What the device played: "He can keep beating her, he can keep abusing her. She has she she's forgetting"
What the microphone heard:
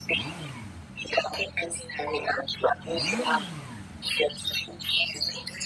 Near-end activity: none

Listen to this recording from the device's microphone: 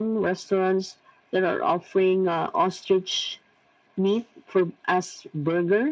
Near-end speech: none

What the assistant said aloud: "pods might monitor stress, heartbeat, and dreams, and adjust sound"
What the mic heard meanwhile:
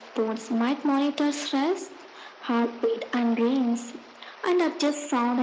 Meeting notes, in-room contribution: none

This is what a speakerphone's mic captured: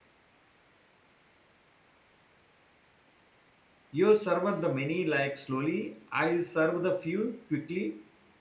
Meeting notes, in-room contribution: present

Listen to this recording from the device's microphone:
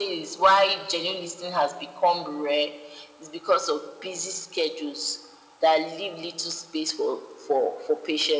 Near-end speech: none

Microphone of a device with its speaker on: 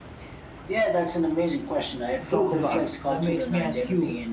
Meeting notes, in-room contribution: present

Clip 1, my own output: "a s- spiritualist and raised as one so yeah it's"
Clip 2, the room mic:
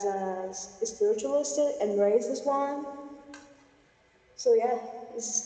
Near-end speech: none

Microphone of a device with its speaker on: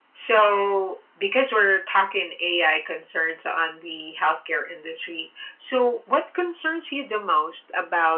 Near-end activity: none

